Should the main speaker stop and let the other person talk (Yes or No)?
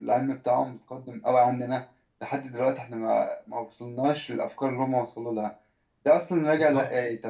No